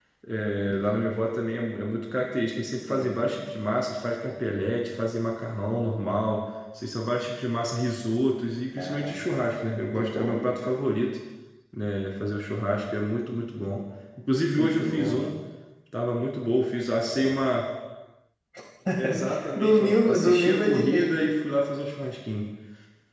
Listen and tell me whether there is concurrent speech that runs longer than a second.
Yes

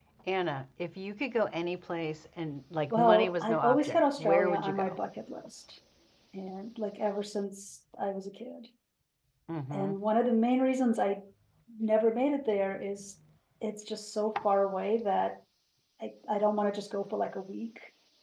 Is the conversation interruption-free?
No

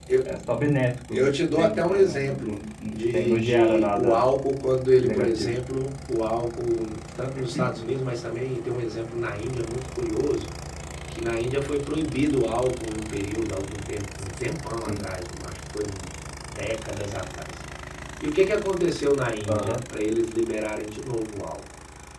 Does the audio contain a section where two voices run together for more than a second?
Yes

